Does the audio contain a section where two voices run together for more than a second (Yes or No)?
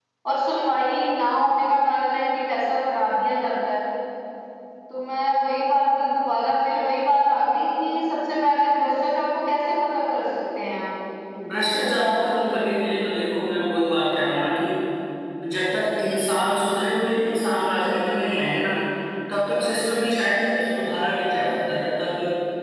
No